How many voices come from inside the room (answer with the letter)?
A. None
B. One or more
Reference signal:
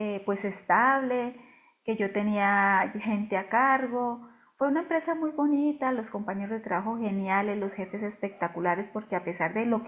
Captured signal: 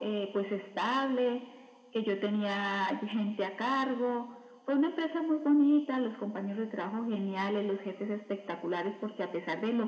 A